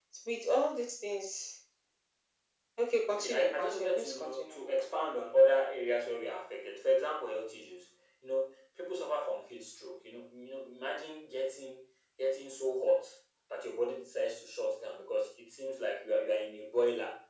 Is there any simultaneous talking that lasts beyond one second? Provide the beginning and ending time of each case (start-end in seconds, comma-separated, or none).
3.1-4.6